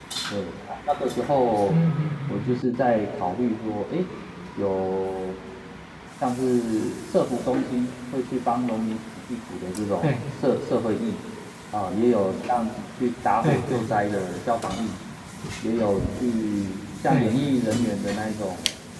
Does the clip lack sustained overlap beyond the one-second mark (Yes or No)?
Yes